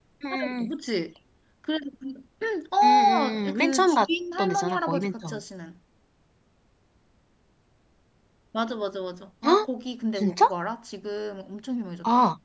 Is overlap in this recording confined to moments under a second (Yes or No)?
No